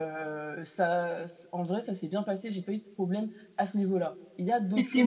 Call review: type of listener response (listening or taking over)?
taking over